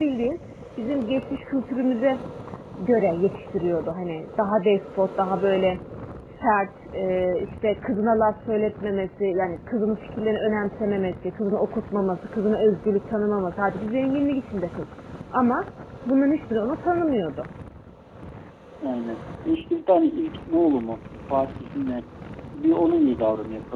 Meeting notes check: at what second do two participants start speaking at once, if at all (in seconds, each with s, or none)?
none